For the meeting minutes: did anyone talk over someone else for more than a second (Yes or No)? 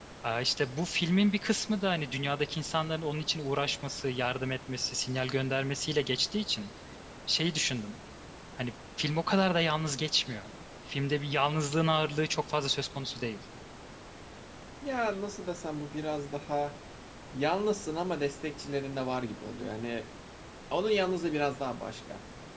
No